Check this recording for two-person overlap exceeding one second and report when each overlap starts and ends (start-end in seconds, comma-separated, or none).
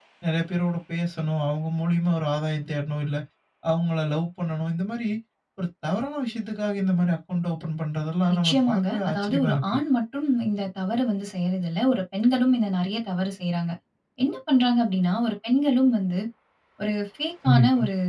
8.3-9.8